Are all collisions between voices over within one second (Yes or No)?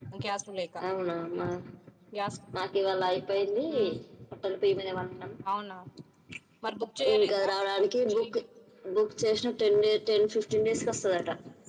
Yes